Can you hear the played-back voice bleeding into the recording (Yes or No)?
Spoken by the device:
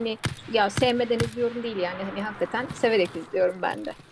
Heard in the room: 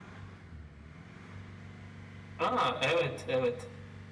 No